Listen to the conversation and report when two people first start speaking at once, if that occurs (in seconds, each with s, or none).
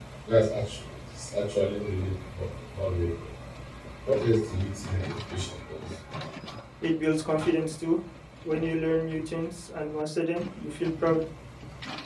none